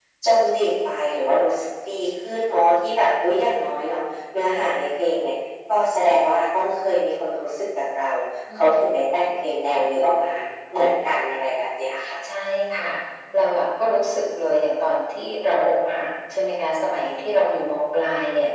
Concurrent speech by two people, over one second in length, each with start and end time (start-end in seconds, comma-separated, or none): none